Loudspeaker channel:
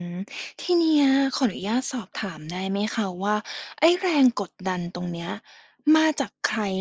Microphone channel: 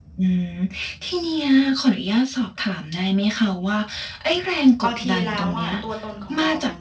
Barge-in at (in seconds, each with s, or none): 4.8 s